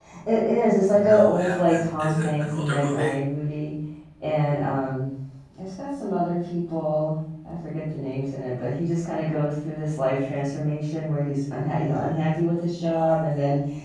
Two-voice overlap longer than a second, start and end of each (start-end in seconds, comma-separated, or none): 0.9-3.1